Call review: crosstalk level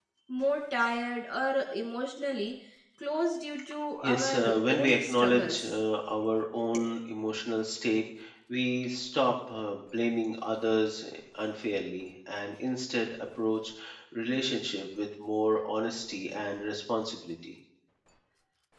present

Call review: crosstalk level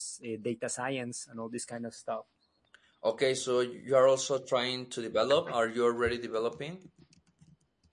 none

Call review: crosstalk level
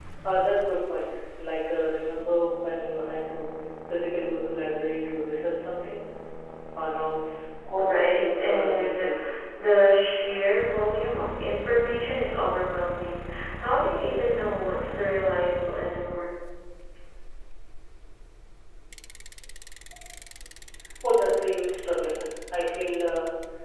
present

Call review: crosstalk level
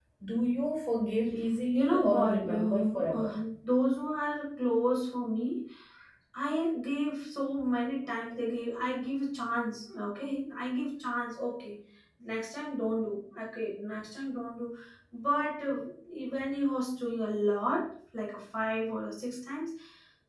present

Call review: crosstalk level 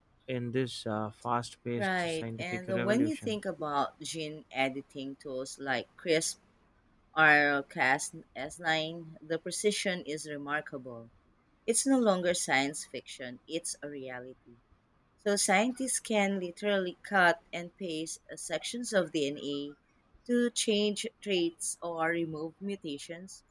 present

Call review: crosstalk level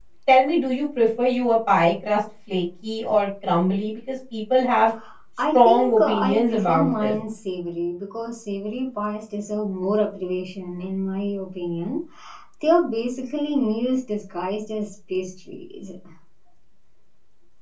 present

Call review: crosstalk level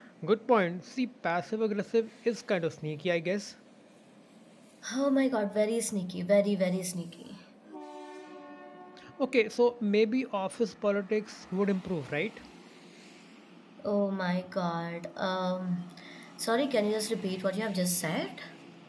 none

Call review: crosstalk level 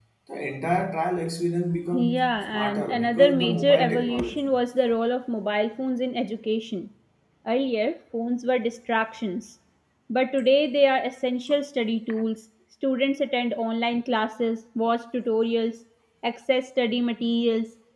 present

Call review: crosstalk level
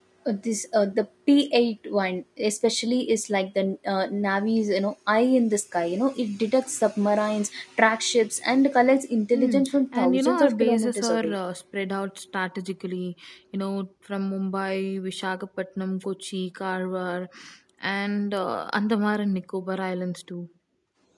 present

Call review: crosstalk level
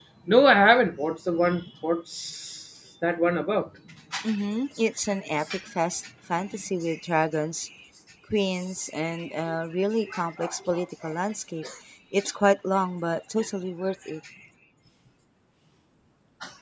none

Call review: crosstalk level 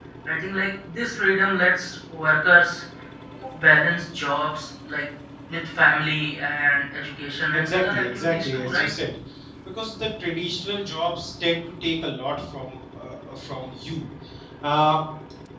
present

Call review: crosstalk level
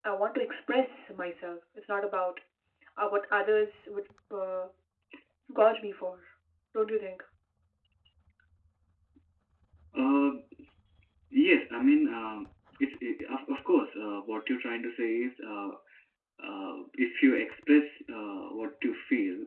none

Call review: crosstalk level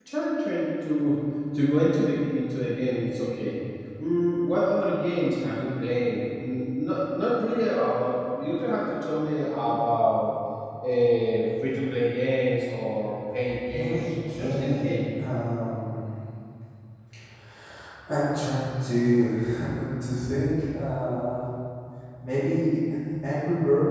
present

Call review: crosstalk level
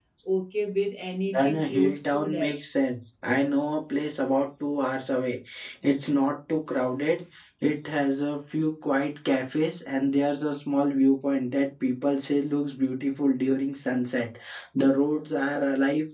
present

